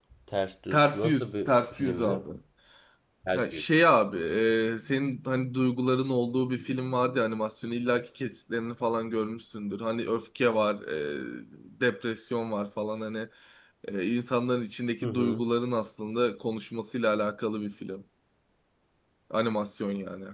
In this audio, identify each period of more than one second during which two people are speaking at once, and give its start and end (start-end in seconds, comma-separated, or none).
0.7-2.2